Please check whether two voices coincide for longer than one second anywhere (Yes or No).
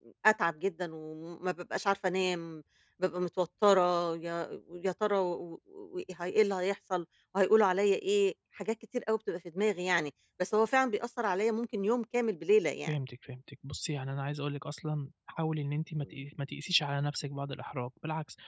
No